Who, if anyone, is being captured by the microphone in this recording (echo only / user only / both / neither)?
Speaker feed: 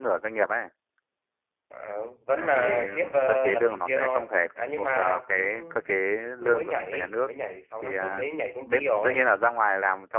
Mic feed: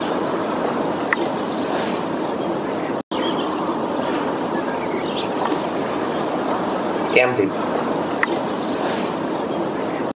user only